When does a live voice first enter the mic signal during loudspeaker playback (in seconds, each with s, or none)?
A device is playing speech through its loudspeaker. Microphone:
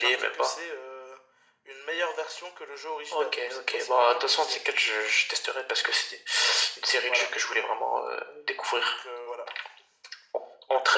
none